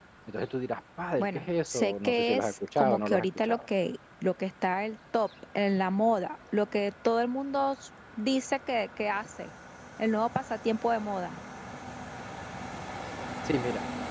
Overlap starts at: 1.2 s

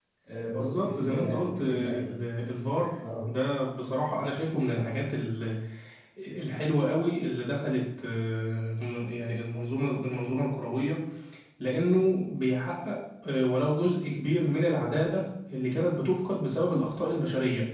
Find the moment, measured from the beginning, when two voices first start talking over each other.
0.6 s

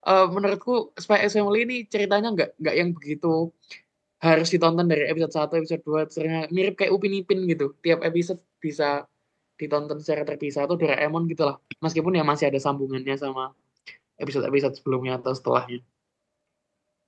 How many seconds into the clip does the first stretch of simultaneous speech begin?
none

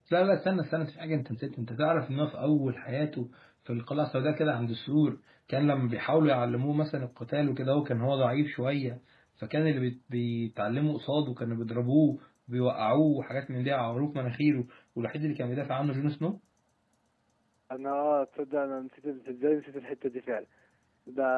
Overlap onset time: none

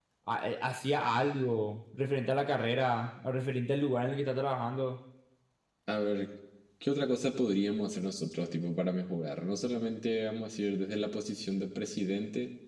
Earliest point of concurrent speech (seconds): none

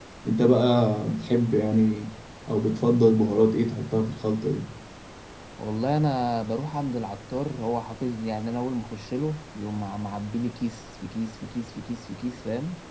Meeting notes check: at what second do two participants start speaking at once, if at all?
none

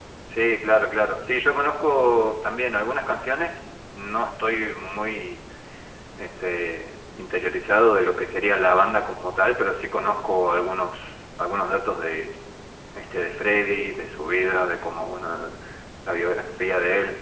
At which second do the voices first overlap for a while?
none

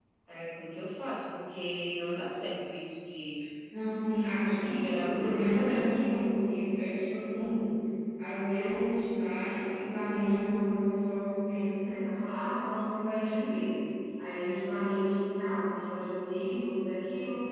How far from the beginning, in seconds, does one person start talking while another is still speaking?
4.4 s

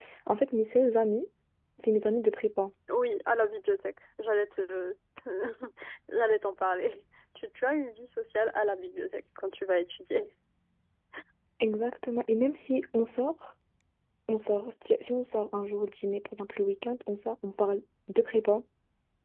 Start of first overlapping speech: none

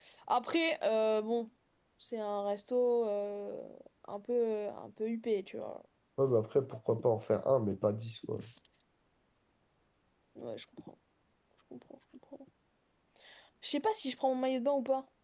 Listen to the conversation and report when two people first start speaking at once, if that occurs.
none

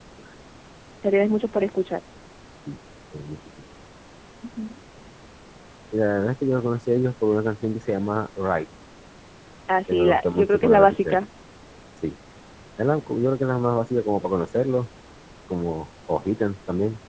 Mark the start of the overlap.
9.9 s

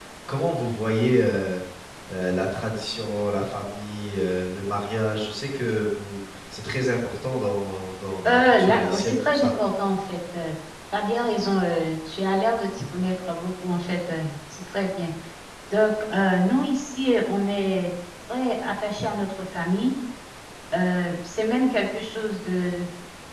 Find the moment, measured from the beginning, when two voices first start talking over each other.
8.2 s

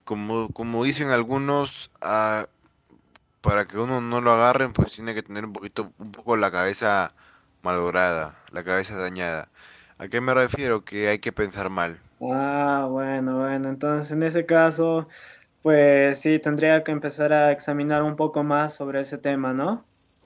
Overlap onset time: none

